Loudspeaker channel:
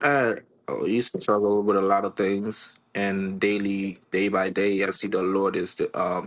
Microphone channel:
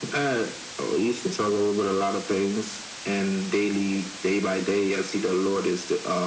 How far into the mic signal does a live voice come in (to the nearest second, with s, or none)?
none